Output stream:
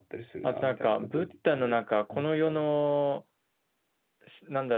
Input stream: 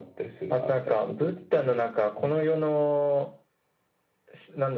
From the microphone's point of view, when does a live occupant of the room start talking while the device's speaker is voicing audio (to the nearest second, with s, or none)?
none